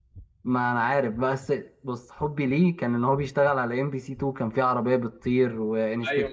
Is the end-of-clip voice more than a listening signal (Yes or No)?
Yes